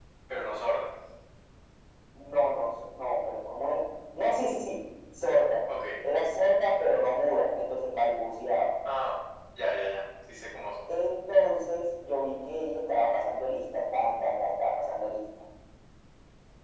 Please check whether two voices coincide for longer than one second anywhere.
No

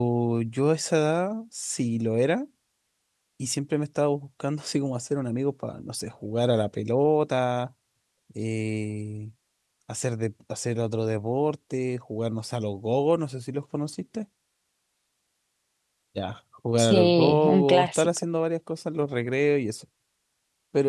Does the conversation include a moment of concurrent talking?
Yes, from 16.8 s

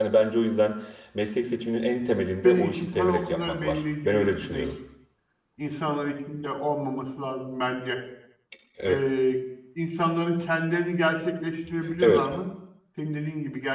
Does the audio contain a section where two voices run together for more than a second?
Yes, from 2.4 s

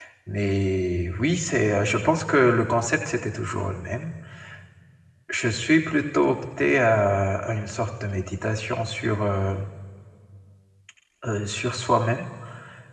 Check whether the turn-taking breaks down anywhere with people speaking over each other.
No

